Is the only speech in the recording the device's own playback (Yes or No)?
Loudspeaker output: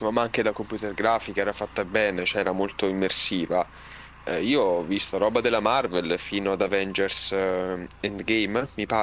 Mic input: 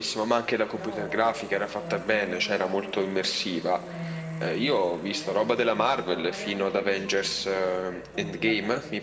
No